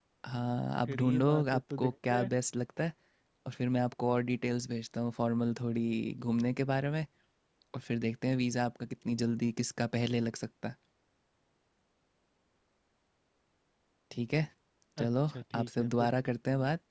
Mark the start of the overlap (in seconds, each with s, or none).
0.8 s